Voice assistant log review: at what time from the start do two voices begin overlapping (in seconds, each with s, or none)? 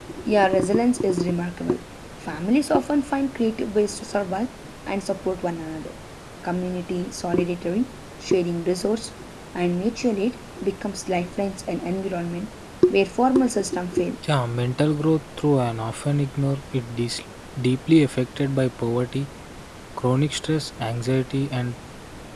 none